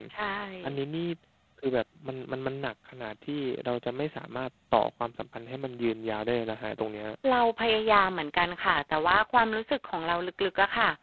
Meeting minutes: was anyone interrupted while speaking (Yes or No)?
No